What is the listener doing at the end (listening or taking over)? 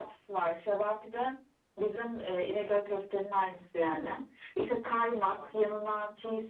listening